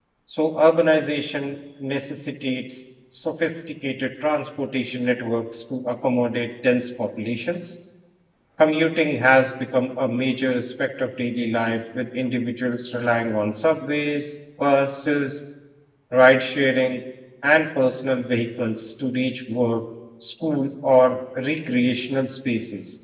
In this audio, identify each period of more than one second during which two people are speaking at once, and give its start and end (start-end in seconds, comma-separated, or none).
none